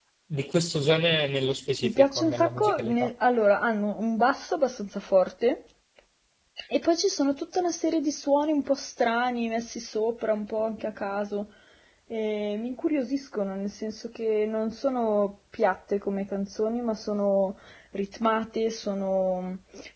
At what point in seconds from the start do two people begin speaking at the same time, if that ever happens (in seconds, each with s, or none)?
1.8 s